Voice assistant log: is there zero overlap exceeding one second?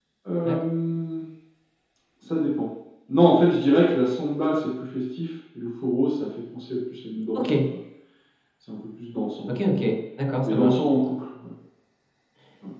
Yes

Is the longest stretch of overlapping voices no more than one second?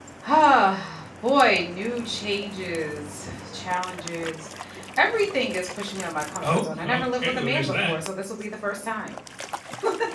No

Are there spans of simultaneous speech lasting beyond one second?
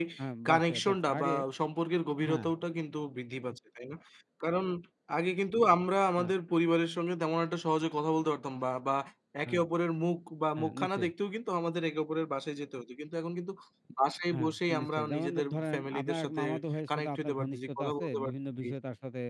Yes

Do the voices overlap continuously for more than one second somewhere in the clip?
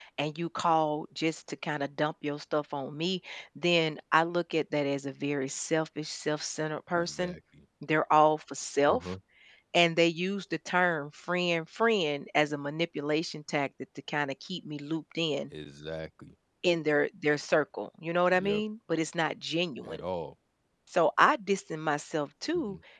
No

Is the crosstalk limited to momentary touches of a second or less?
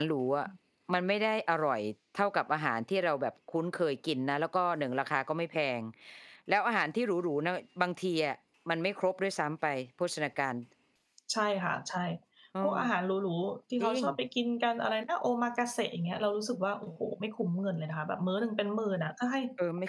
Yes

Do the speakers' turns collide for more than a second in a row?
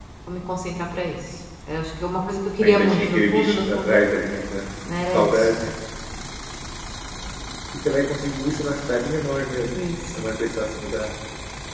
Yes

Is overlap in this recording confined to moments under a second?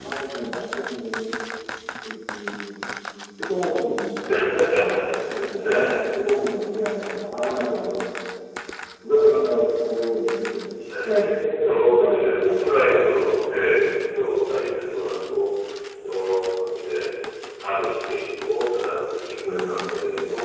No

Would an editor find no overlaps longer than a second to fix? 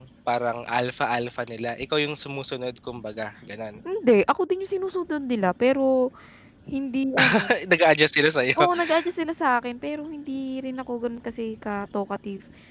Yes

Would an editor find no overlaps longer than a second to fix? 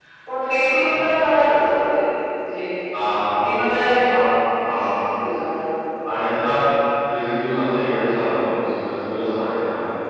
Yes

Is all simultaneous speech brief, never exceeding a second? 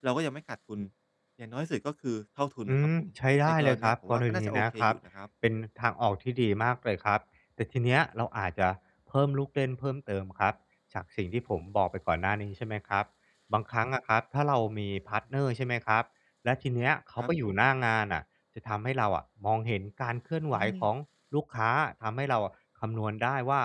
No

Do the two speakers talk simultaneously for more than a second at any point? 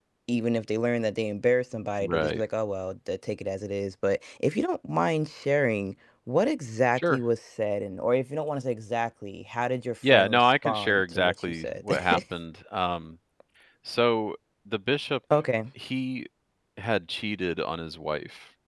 Yes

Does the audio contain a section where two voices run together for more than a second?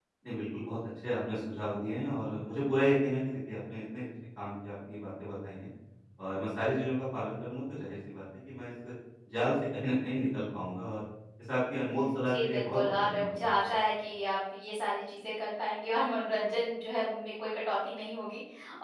Yes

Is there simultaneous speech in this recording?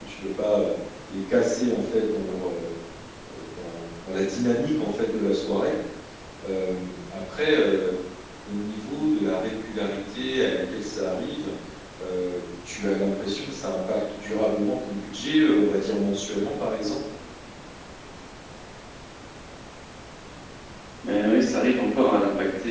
No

